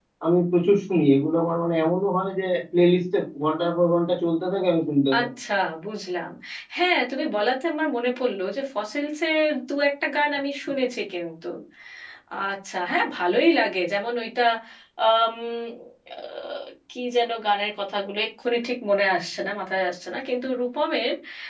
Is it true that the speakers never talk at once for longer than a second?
Yes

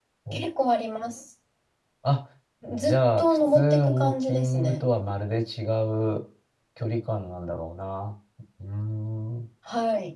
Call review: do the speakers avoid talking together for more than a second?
No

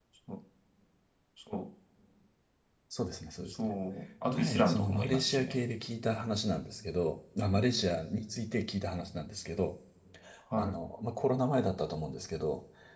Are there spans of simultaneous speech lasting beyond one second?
Yes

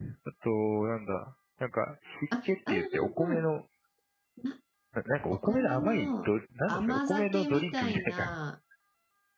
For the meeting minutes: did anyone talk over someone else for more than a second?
Yes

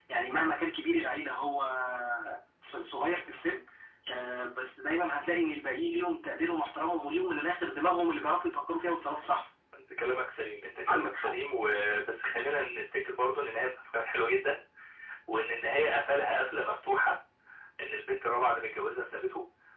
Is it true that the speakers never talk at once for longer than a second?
Yes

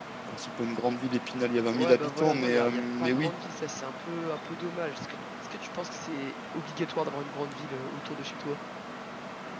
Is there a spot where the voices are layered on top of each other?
Yes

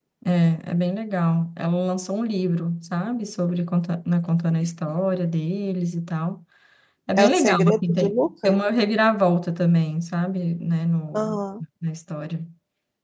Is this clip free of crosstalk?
No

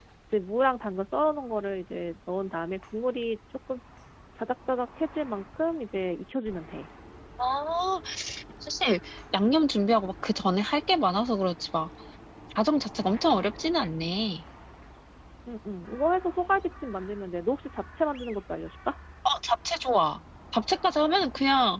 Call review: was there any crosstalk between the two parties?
No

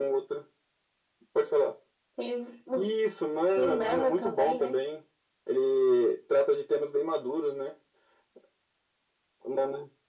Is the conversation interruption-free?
No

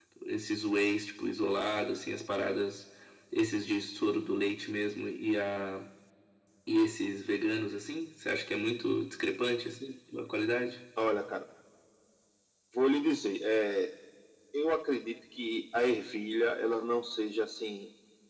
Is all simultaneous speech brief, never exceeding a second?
Yes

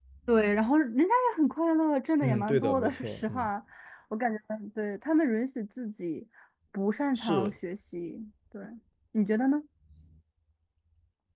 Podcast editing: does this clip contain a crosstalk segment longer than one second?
Yes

